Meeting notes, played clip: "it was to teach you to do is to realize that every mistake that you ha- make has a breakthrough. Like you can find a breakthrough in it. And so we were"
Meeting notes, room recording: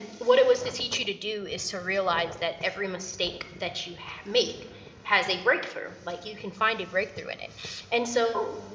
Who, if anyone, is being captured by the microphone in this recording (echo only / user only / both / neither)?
echo only